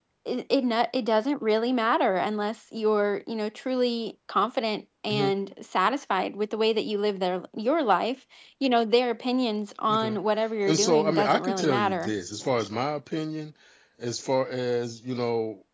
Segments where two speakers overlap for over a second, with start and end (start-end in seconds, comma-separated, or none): 10.7-12.1